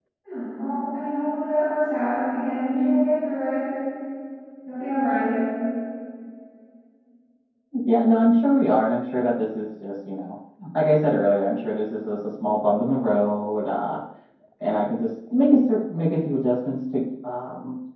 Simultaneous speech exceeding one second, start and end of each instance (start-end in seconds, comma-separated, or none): none